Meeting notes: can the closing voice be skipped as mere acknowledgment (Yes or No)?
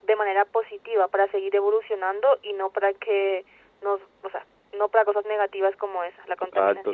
No